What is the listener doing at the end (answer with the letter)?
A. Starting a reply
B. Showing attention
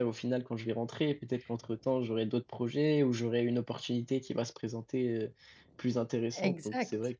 A